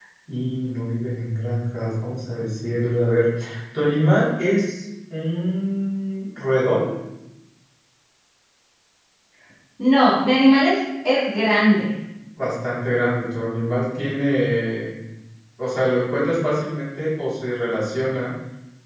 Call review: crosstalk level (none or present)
none